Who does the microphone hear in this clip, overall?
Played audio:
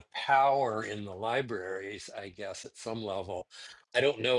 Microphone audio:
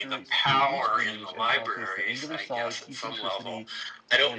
both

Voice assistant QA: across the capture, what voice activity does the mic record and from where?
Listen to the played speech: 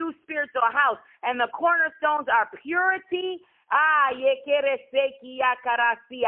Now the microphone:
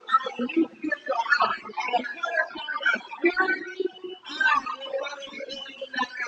echo only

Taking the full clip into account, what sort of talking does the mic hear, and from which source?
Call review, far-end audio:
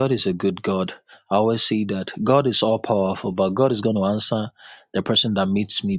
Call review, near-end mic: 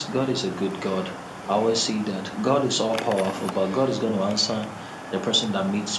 echo only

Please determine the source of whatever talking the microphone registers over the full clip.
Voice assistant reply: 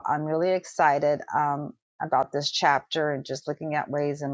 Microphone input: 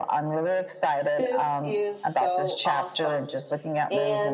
both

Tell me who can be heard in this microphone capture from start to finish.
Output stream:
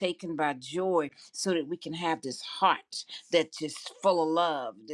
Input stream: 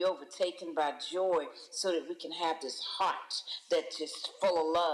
echo only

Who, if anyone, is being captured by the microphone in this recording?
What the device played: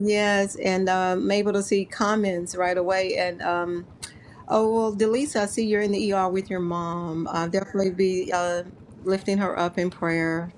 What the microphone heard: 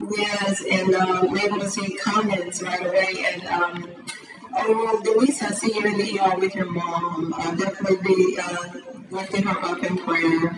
echo only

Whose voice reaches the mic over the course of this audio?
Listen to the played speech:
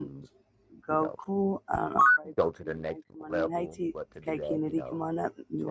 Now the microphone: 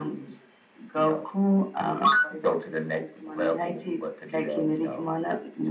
echo only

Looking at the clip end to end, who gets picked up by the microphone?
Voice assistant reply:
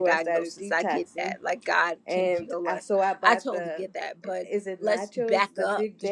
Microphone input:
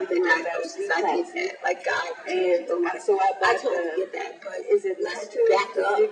echo only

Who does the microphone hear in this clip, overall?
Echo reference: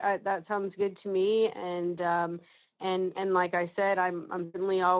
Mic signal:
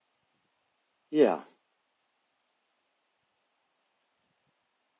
user only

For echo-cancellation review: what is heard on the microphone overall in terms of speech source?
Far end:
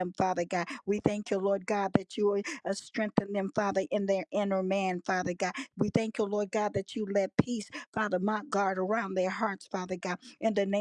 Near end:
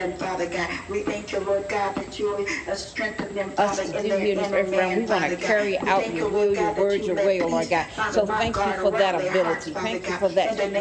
both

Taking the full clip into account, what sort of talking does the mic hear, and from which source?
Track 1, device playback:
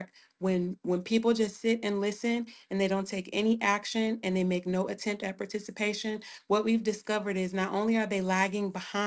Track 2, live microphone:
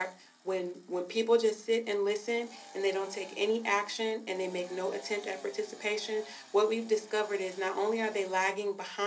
echo only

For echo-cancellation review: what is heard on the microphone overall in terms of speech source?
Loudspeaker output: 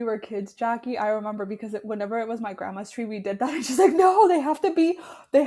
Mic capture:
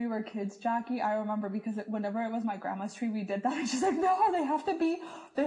echo only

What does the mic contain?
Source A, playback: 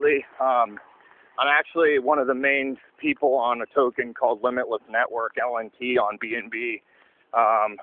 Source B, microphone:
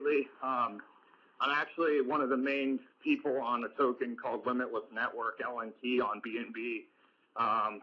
echo only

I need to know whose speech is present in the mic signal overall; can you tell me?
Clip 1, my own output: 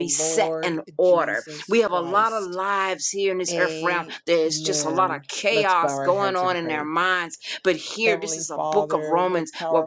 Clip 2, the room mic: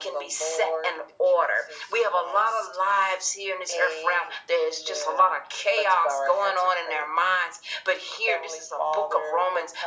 echo only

